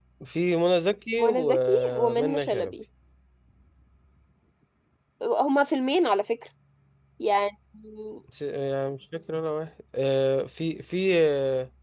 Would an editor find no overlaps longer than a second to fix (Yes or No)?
No